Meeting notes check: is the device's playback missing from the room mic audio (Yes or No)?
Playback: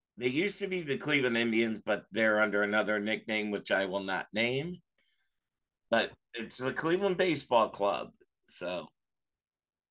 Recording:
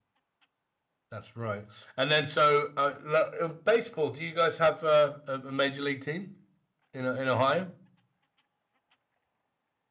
Yes